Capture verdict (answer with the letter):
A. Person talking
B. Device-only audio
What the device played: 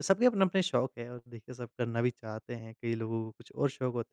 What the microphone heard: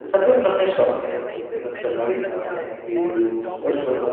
A